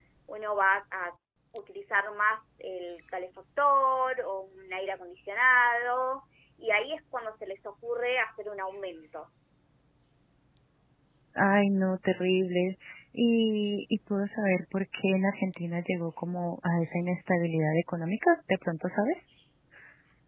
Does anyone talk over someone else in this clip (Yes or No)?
No